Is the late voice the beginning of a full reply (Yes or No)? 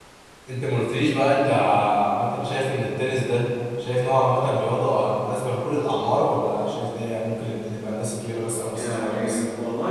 Yes